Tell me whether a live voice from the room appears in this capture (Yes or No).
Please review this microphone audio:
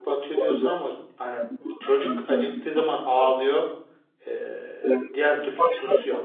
Yes